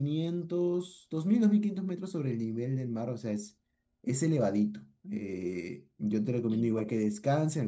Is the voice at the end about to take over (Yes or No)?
No